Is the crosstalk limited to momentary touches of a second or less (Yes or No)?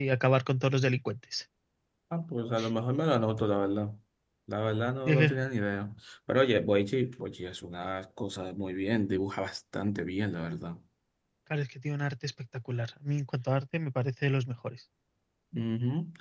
Yes